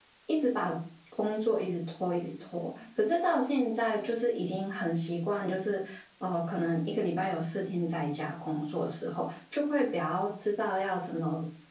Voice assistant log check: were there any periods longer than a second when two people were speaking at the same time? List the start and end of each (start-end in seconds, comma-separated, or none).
none